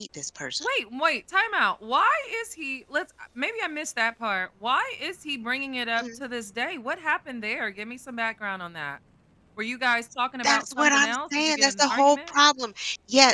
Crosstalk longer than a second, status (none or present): present